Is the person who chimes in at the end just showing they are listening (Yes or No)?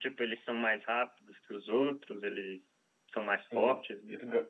No